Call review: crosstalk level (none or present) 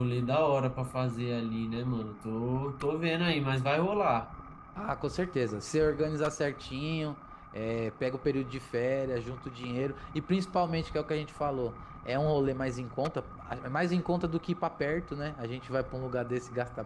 none